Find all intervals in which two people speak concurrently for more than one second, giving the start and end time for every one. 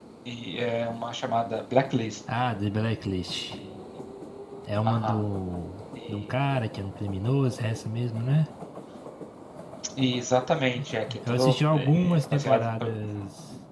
11.3-12.9

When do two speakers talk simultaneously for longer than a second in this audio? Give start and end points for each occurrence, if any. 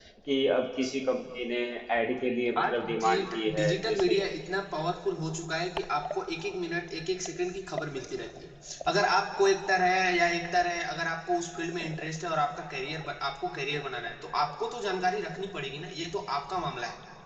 2.6-4.2

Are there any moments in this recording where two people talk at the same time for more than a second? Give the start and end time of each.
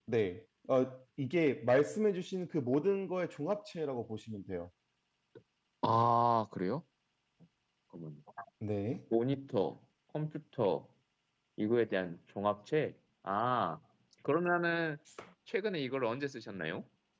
none

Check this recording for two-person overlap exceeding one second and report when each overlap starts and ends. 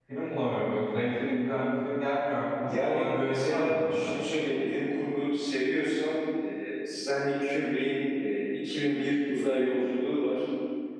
2.6-4.1

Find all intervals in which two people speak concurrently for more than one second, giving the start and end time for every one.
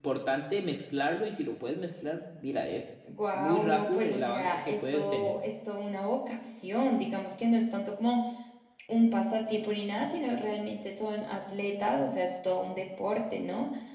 3.3-5.3

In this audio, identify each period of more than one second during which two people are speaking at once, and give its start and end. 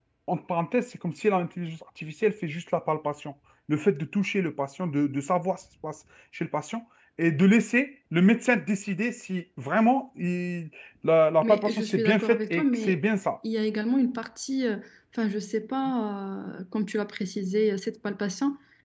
11.4-12.9

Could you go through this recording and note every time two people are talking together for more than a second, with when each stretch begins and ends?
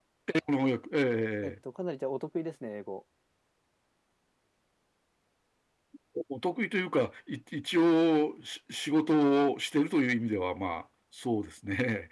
none

